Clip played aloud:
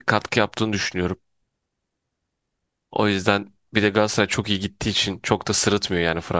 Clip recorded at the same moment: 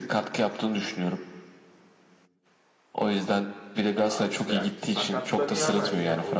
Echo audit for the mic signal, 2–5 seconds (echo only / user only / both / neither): both